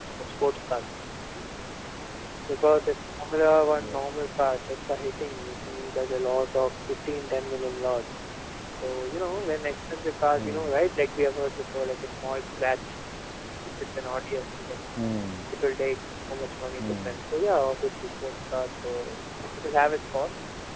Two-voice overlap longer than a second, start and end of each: none

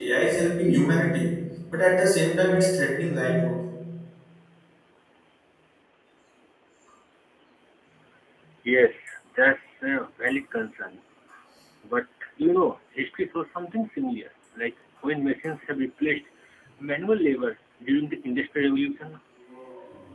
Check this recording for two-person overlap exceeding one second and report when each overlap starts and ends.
none

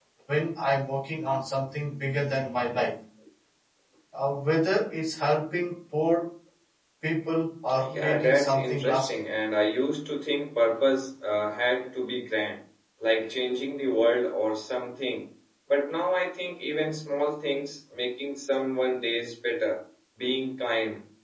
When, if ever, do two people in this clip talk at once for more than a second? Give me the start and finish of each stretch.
7.8-9.1

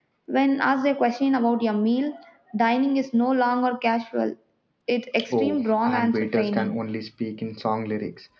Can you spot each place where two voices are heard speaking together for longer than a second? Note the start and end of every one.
5.3-6.8

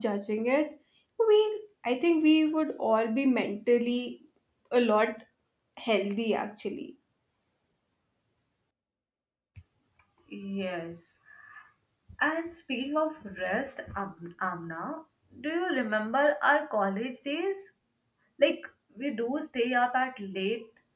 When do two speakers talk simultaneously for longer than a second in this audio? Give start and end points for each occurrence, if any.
none

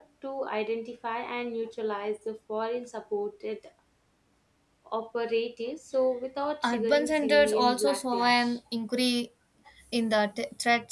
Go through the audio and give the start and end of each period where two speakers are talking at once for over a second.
6.6-8.6

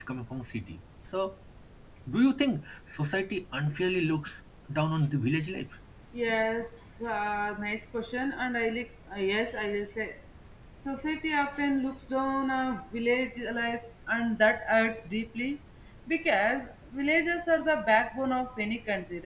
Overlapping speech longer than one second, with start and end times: none

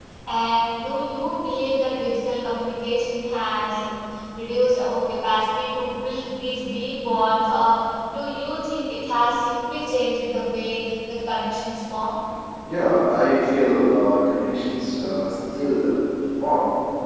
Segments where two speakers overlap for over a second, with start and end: none

